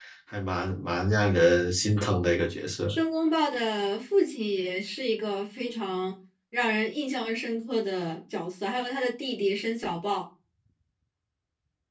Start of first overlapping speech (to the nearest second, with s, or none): none